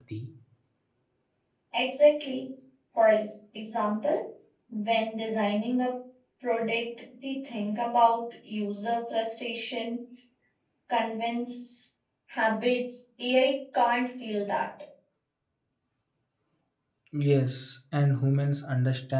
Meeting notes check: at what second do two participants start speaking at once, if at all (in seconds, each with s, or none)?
none